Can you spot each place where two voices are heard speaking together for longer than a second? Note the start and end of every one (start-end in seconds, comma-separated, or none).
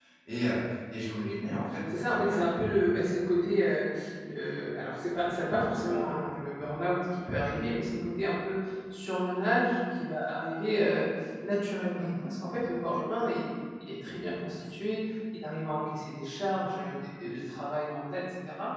none